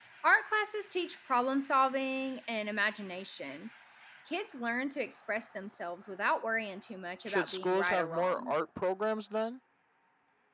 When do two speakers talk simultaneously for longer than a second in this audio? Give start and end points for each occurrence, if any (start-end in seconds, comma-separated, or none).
7.3-8.5